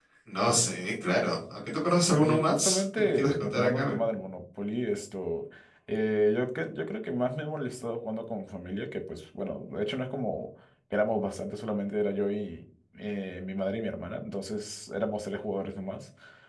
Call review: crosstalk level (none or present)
present